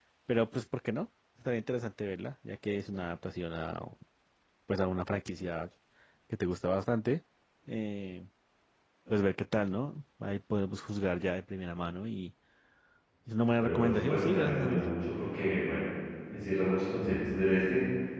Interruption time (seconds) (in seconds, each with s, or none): 13.6 s